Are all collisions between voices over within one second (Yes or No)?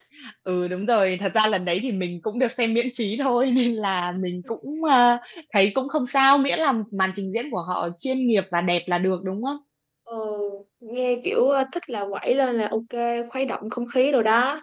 Yes